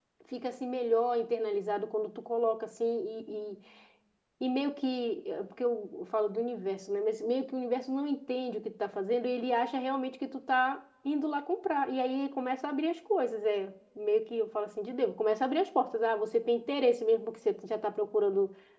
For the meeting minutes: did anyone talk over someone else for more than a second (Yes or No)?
No